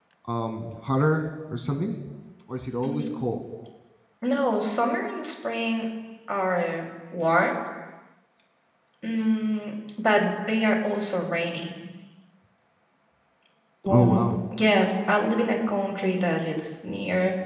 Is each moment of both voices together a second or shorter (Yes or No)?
Yes